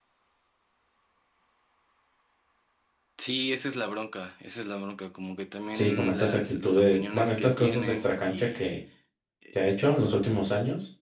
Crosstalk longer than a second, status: present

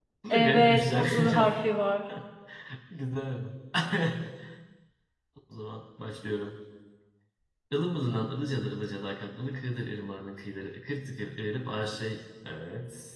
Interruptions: present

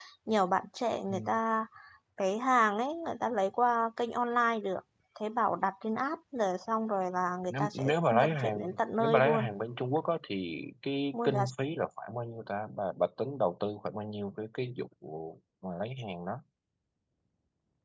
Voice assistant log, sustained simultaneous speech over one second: present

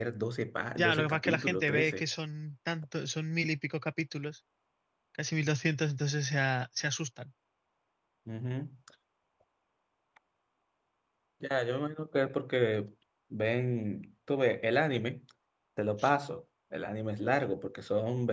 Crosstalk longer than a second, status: present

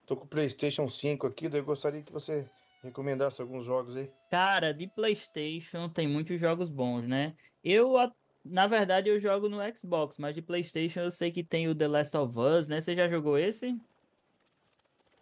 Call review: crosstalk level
none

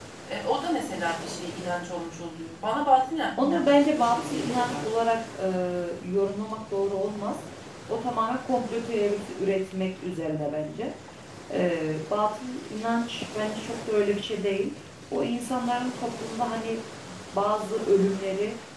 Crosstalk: present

